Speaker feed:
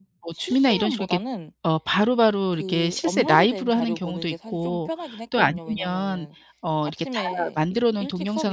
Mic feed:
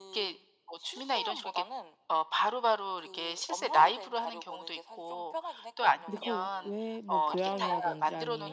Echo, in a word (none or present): present